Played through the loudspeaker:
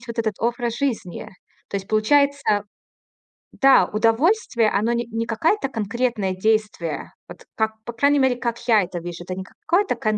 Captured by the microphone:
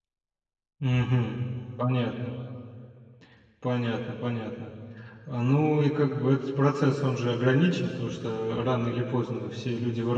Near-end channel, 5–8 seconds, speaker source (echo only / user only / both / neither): user only